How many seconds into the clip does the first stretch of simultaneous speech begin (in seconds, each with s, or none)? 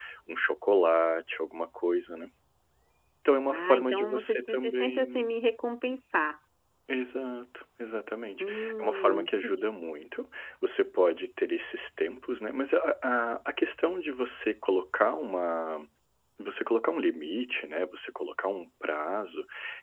3.5 s